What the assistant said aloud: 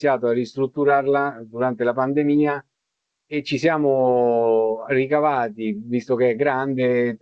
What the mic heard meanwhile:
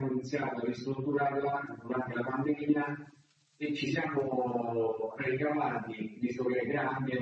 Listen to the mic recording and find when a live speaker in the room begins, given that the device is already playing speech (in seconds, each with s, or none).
none